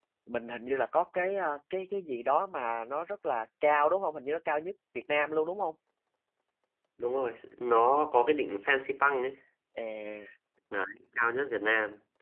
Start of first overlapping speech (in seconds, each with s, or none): none